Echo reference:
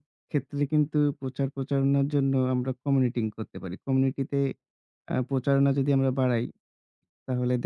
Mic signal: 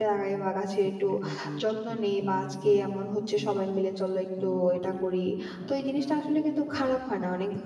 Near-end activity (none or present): present